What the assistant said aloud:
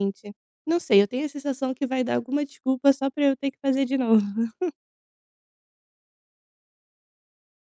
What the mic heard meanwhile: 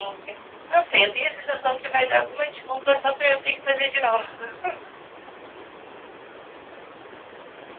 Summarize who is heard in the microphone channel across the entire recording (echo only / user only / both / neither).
echo only